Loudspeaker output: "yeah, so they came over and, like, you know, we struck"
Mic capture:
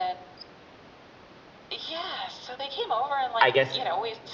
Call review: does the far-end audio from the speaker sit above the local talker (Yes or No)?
No